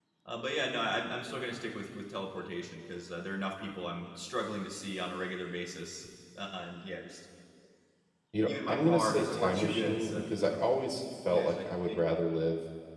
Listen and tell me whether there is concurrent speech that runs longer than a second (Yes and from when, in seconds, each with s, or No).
Yes, from 8.4 s